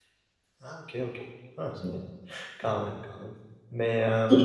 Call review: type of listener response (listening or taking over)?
taking over